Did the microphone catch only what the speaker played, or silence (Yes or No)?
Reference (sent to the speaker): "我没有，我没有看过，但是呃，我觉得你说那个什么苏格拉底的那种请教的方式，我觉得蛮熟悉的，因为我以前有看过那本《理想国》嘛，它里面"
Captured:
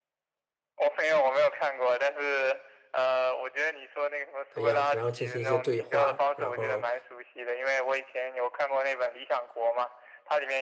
No